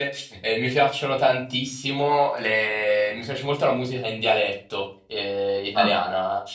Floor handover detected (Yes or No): No